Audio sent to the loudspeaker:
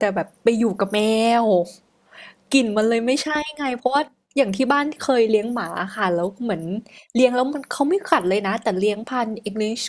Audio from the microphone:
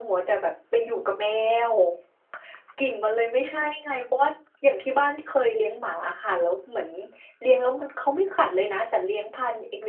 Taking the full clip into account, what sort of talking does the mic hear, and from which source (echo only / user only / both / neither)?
echo only